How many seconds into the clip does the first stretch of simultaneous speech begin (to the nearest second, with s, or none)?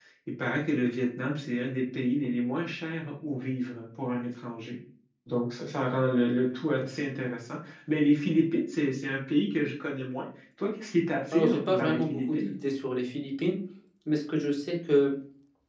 11 s